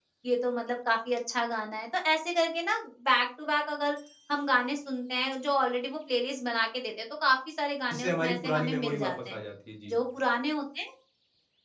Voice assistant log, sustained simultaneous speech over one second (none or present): present